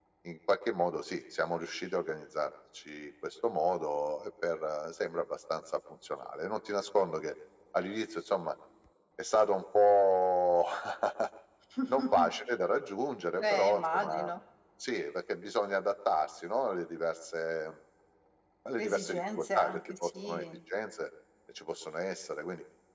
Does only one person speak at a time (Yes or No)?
No